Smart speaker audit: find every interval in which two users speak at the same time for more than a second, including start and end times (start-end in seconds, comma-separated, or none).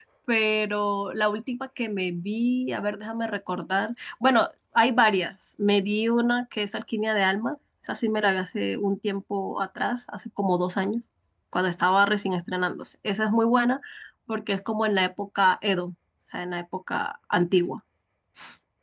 none